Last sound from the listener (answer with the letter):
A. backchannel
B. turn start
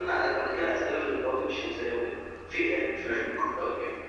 A